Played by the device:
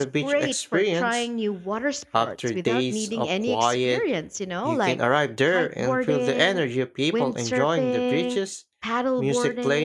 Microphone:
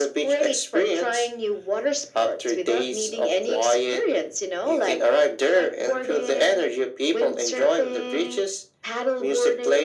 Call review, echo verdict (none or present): present